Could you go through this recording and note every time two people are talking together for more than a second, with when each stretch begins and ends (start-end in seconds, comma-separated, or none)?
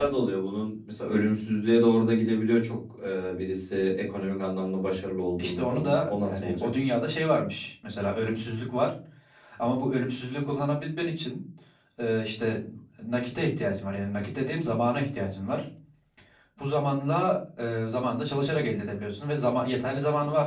5.4-6.7